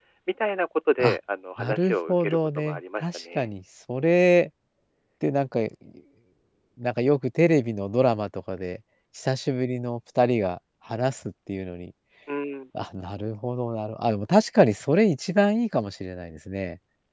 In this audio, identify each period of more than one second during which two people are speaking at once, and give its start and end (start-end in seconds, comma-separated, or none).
1.6-3.5